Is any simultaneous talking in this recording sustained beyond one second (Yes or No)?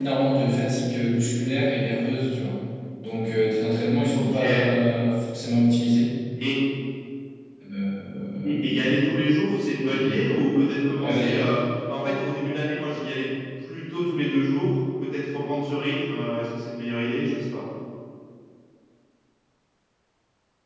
No